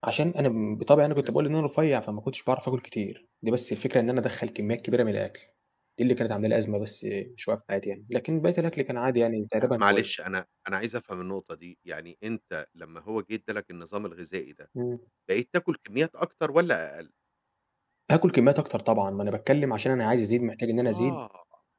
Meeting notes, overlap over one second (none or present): none